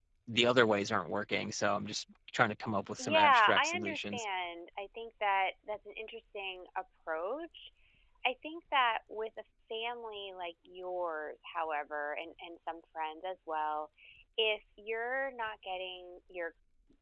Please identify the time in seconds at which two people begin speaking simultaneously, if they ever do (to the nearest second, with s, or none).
3 s